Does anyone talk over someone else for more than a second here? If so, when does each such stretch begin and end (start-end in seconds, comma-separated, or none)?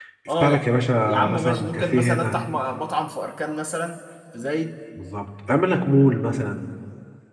1.0-2.4